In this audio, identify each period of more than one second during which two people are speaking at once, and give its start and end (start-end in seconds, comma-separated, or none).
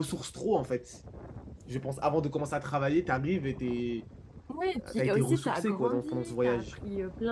4.9-6.6